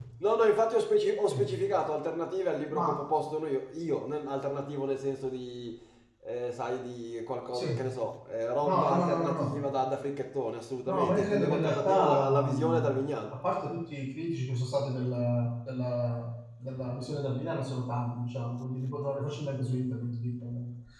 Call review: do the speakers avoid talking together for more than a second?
No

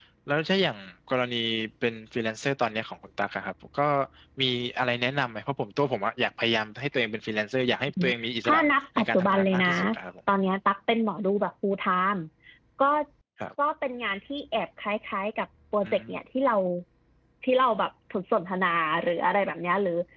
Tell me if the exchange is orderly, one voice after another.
No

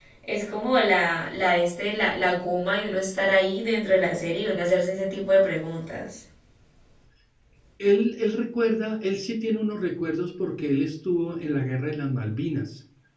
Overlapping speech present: No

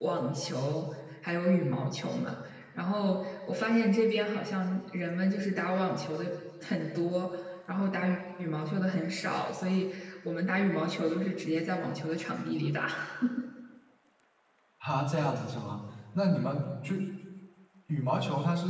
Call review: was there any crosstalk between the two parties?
No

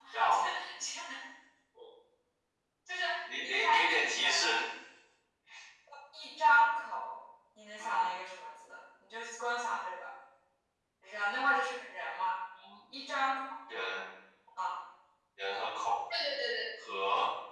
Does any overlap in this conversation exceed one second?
Yes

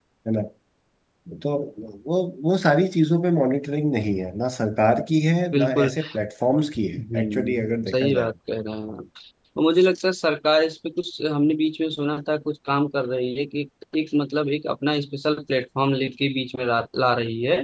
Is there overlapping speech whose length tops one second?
Yes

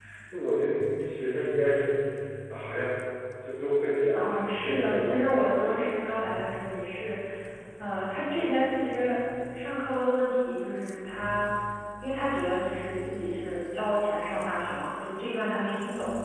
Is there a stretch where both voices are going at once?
Yes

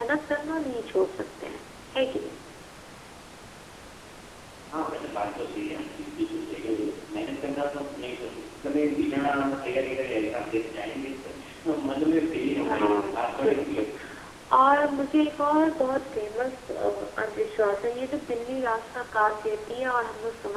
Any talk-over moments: Yes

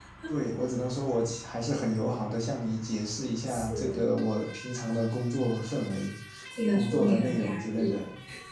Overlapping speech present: Yes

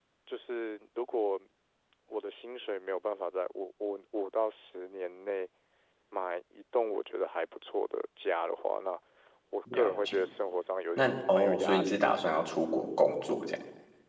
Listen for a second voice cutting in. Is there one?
Yes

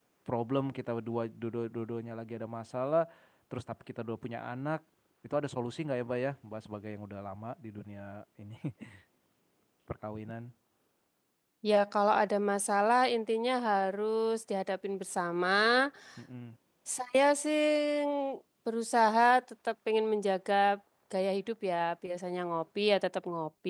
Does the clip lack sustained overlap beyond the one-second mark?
Yes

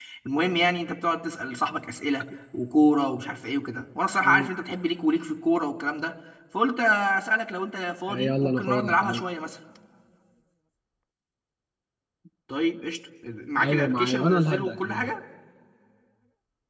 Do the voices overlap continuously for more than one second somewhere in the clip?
Yes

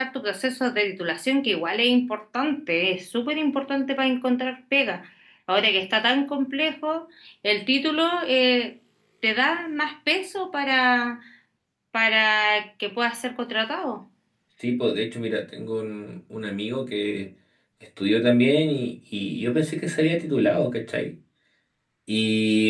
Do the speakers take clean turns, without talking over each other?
Yes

